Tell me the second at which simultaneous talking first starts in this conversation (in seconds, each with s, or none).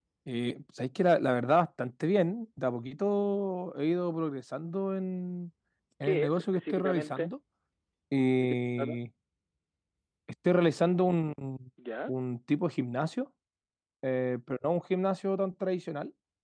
6.0 s